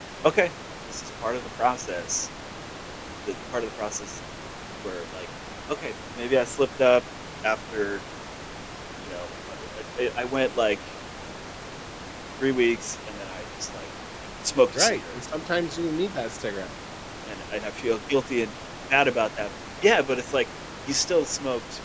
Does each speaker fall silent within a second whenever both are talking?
Yes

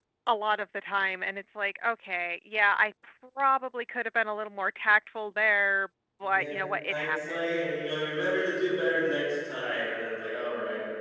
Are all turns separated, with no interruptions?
No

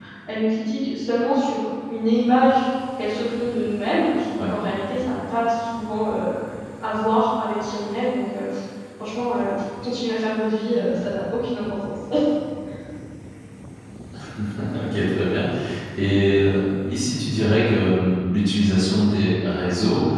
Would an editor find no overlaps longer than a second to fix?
Yes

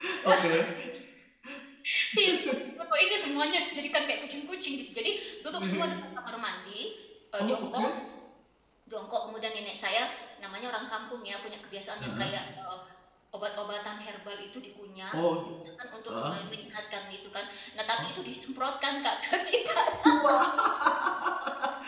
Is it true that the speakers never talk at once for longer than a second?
Yes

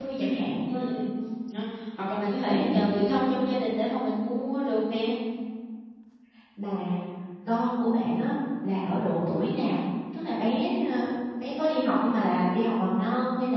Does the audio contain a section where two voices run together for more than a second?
No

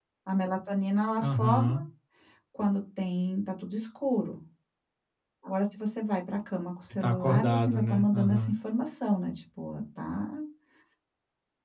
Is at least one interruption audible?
Yes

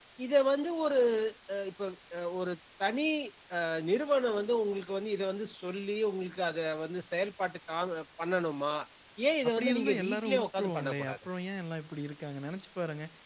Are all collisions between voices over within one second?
No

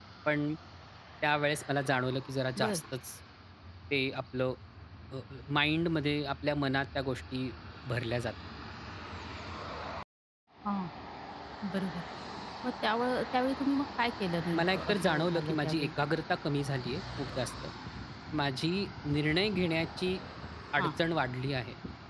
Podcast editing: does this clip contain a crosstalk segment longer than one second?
Yes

